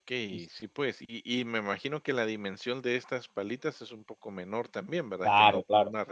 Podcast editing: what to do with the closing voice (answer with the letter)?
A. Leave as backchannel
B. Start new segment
B